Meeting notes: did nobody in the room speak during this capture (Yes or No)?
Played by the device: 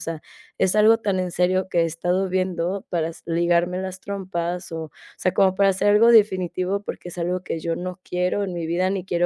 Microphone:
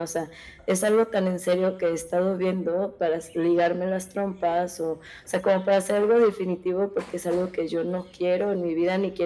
Yes